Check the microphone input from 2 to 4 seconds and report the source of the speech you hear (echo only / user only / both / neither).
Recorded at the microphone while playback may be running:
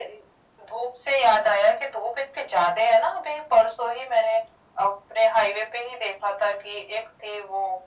echo only